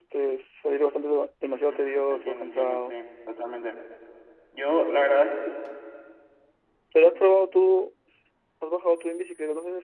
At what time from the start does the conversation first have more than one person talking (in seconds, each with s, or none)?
1.7 s